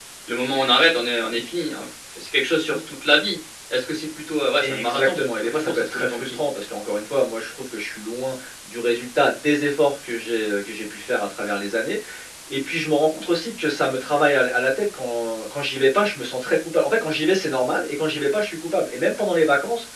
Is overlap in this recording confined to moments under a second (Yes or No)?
No